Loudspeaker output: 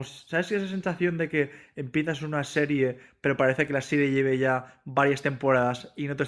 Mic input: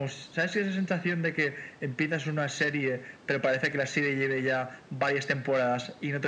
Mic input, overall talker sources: echo only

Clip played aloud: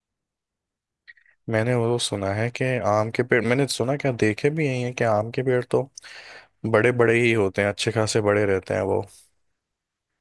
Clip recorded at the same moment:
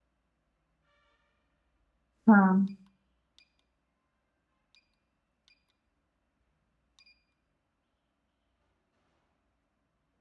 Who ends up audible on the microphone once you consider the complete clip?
user only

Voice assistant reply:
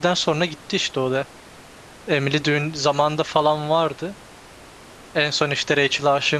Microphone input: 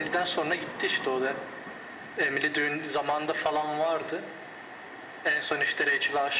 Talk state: echo only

